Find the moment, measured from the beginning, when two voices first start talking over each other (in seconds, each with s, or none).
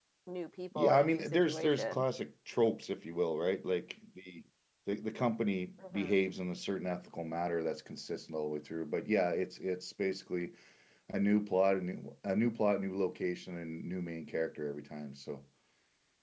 0.8 s